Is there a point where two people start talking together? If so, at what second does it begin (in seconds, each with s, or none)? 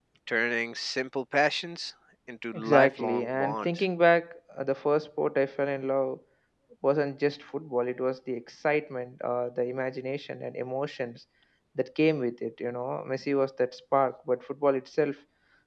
2.5 s